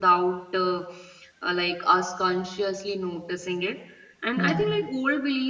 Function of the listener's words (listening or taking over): listening